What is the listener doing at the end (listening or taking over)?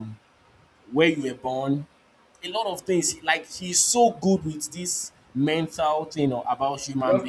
taking over